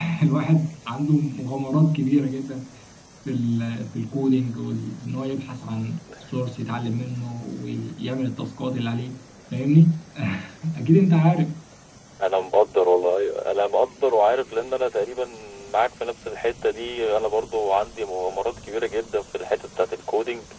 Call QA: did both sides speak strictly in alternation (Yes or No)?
Yes